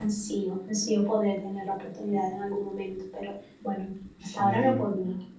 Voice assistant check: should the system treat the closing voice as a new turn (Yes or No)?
Yes